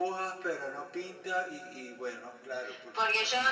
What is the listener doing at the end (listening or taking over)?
taking over